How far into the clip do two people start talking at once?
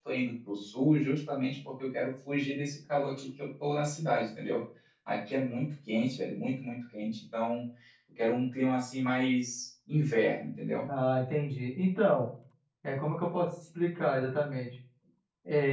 none

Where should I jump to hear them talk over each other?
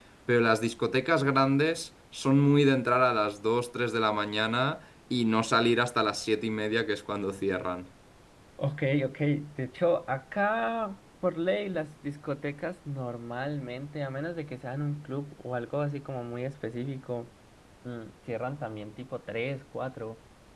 none

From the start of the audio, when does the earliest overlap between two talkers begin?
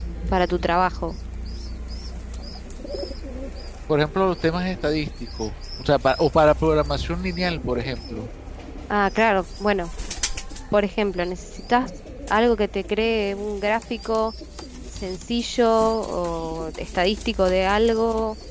none

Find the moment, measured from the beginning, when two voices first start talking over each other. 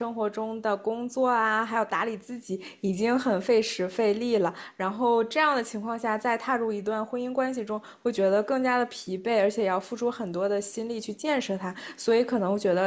none

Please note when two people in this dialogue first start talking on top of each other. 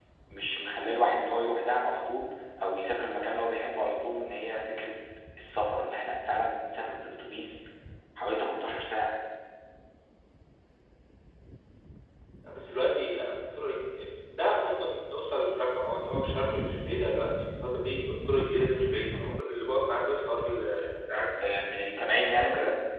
none

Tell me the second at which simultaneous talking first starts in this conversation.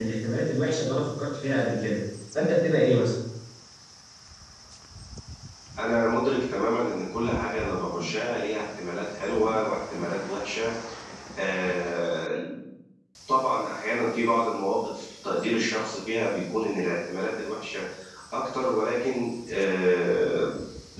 none

